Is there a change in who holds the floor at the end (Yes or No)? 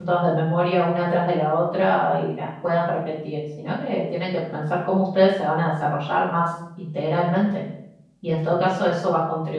No